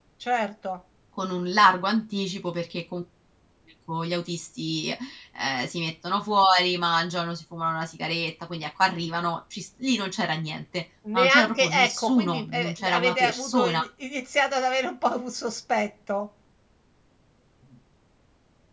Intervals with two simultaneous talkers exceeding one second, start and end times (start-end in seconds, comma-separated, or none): 11.1-13.8